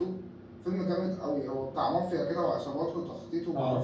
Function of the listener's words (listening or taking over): listening